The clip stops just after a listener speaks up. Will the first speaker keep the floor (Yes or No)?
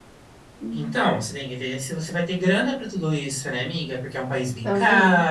Yes